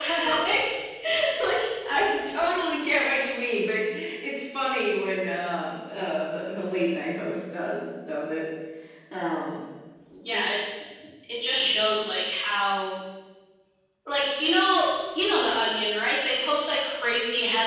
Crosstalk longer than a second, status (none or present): none